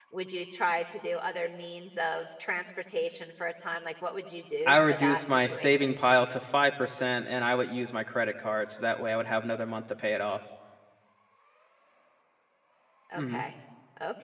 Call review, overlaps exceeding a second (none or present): present